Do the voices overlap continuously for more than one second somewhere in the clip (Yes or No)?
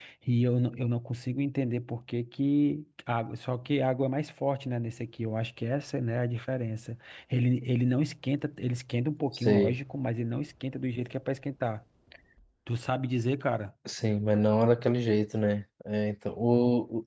No